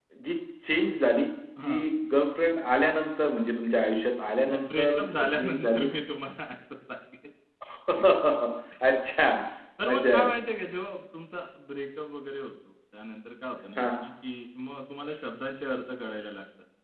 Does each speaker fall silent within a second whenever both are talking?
No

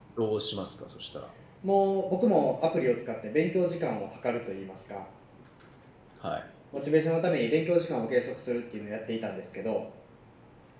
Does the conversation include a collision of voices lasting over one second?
No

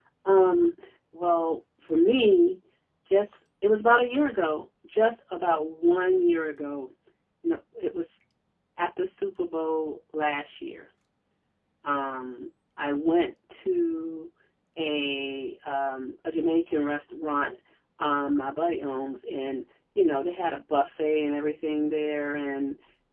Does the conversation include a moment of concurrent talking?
No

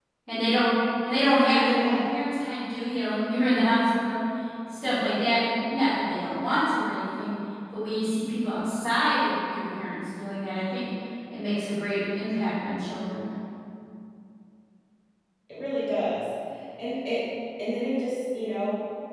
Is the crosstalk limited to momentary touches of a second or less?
Yes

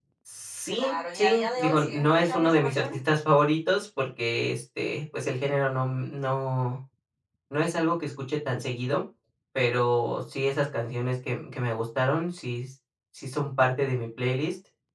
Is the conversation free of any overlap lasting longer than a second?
No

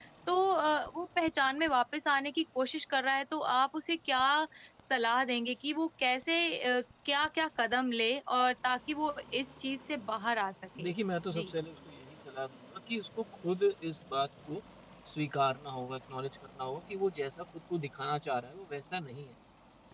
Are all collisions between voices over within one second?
Yes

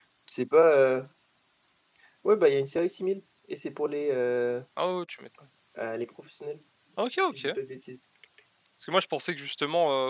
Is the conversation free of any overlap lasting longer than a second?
Yes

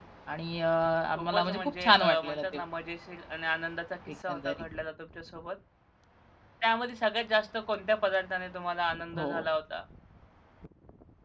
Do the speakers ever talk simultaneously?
Yes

